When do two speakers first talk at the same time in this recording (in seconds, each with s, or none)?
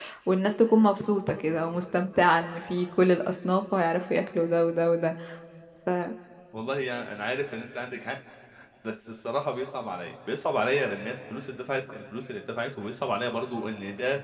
none